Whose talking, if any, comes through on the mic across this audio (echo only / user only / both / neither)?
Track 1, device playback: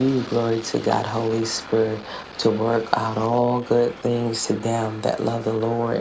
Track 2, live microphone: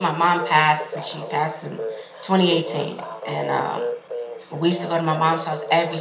both